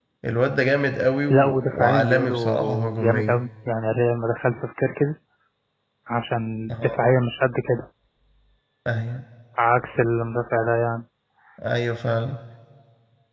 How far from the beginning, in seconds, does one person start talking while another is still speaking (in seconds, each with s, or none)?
1.3 s